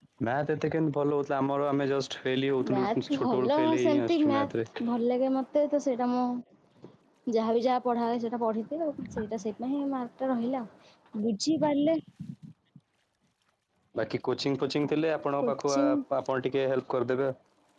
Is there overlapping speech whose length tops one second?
Yes, from 2.7 s

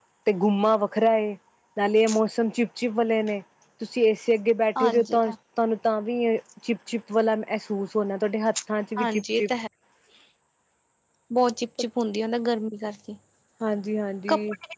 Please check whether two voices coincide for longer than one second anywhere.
No

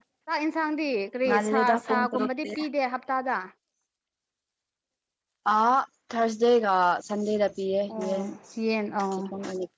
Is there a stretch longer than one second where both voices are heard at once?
Yes, from 1.3 s

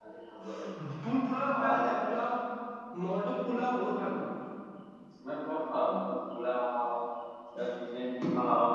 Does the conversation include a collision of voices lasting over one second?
No

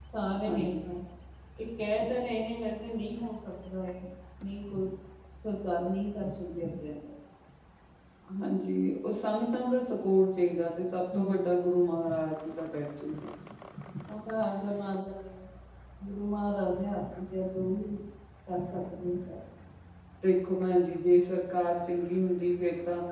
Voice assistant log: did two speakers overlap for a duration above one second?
No

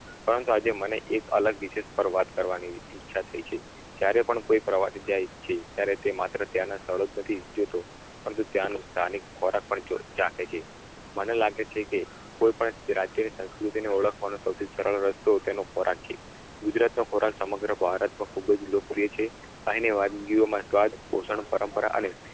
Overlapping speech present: No

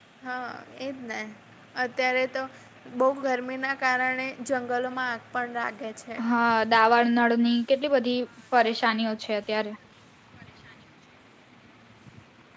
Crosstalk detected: No

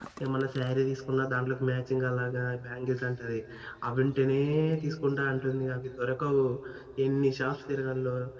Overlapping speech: No

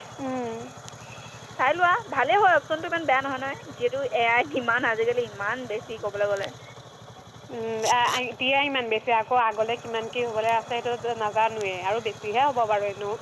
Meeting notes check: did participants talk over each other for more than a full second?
No

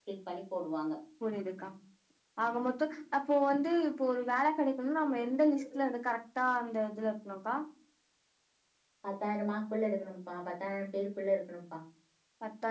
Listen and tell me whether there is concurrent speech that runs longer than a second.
No

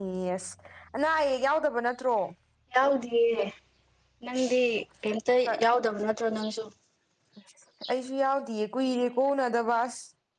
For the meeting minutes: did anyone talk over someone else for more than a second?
No

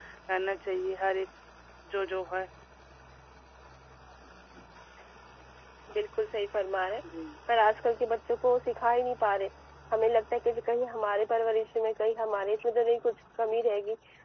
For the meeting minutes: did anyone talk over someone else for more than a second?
No

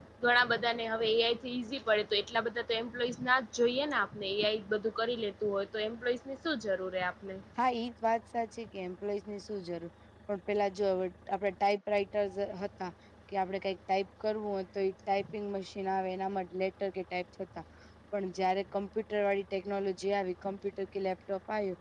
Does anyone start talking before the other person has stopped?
No

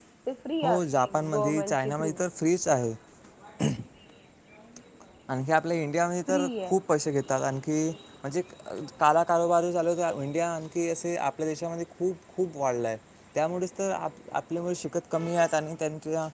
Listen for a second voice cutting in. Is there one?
Yes, from 0.6 s

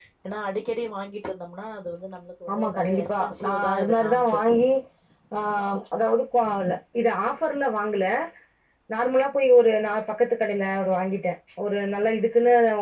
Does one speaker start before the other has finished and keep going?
Yes, from 2.5 s

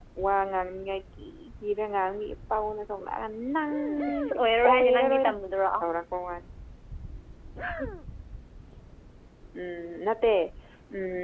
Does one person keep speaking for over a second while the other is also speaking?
Yes, from 4.1 s

